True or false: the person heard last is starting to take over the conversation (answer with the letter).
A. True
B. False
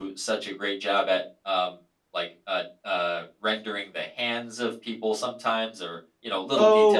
A